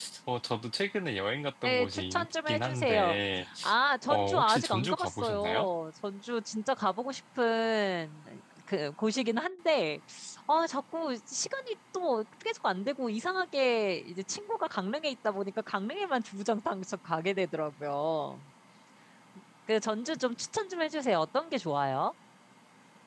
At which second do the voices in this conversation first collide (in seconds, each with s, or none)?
1.6 s